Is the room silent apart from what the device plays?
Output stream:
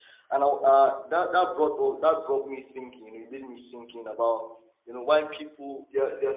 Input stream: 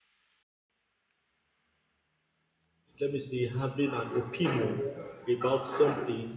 No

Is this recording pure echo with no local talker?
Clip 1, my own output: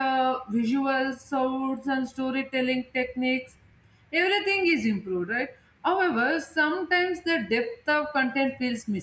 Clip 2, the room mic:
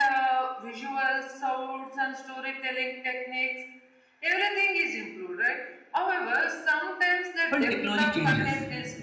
No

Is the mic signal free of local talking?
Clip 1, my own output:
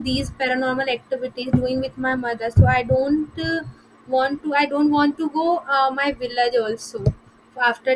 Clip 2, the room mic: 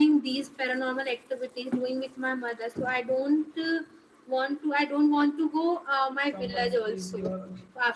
No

